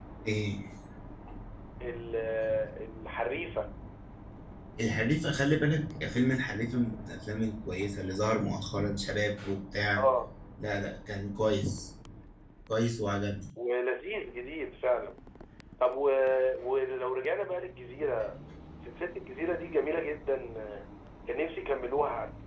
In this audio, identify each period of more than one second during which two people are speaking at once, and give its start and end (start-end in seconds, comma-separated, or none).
none